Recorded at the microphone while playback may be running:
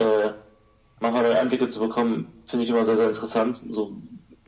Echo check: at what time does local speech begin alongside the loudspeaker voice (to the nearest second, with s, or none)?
none